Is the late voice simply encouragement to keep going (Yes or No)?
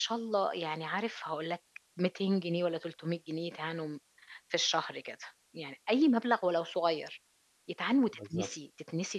Yes